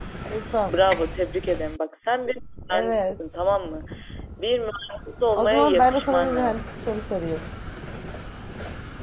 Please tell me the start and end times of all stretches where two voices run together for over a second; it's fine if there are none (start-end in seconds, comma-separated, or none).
5.4-6.6